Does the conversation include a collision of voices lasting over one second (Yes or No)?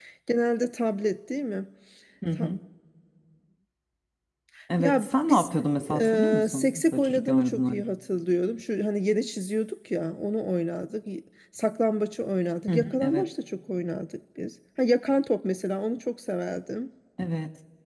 Yes